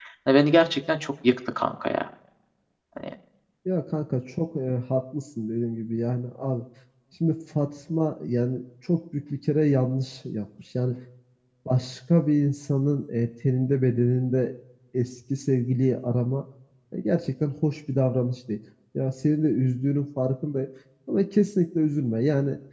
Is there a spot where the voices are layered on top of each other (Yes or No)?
No